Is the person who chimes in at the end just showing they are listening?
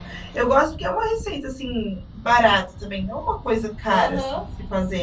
No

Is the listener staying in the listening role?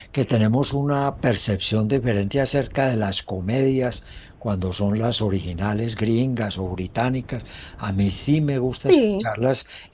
Yes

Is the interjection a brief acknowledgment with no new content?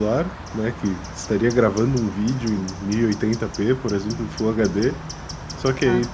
Yes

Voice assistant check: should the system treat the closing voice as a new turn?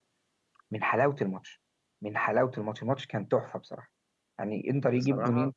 No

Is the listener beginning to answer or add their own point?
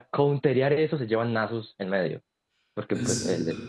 No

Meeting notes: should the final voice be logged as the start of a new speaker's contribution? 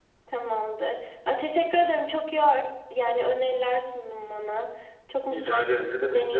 Yes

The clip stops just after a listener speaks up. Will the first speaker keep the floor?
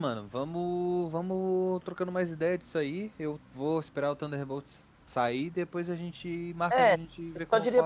No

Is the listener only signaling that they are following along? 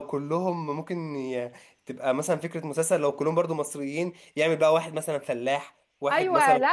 No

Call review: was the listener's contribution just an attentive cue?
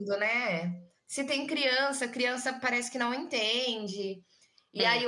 Yes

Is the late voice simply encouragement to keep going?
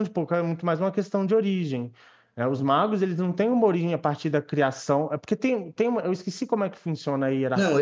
No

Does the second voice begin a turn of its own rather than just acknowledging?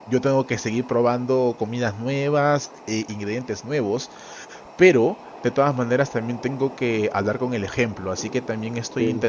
No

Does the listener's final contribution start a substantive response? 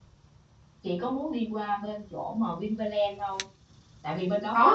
No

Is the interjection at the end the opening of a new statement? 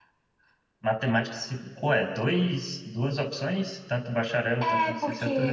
Yes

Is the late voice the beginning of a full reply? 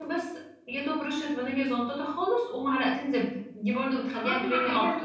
Yes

